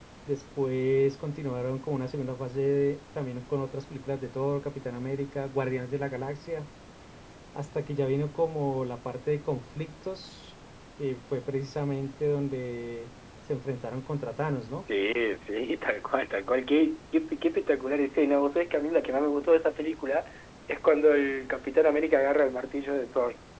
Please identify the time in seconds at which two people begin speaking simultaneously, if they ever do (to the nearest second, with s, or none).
none